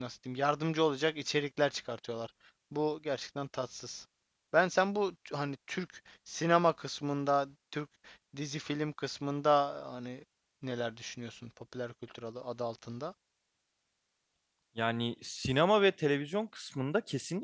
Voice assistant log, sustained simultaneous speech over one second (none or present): none